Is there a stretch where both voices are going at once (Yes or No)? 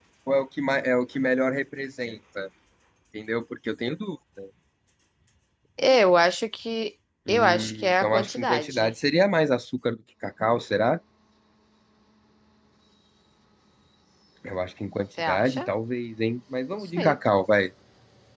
Yes